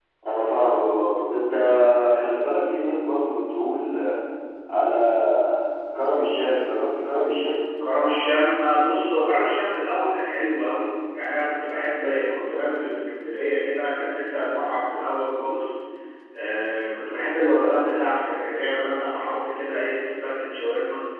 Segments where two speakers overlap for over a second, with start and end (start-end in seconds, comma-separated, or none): none